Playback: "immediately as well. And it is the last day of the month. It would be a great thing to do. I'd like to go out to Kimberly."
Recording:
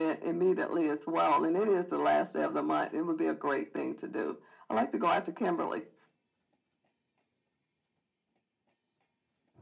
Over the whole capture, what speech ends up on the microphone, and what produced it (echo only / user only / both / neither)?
echo only